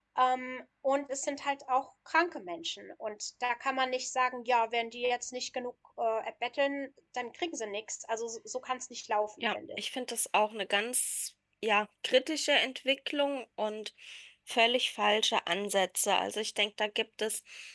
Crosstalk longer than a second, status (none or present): none